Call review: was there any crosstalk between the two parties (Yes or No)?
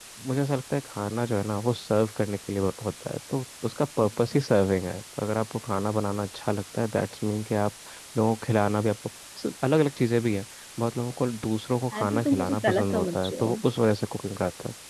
Yes